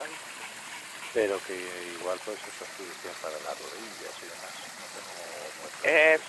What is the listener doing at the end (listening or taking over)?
taking over